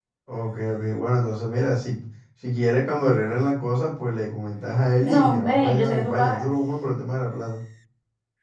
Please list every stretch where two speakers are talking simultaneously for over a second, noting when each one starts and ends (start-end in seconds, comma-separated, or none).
5.0-6.5